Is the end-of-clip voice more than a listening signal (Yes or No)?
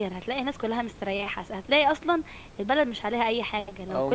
Yes